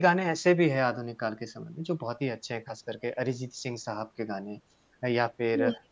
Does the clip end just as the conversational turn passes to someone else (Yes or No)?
No